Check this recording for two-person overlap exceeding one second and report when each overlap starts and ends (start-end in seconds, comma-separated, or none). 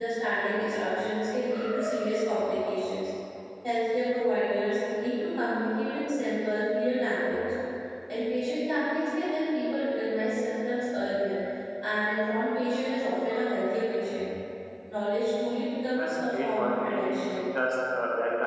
15.9-17.5